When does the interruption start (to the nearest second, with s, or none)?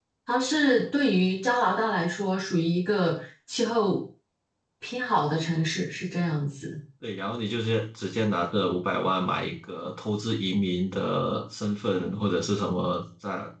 none